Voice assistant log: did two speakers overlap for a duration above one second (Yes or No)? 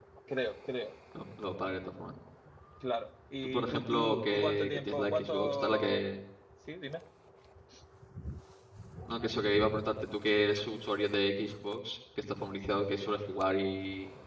Yes